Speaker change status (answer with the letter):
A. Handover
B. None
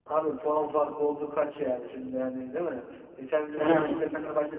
B